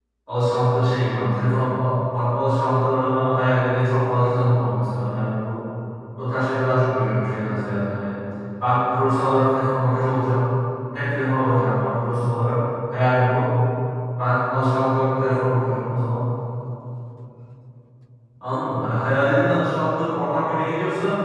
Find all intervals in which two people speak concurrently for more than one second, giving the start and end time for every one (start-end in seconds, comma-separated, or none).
none